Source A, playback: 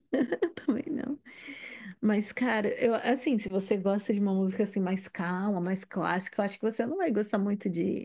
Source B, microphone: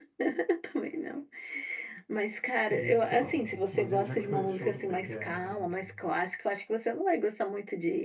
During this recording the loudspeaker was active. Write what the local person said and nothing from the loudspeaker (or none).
Então, mas e onde é que foi esse show do BTS, hein?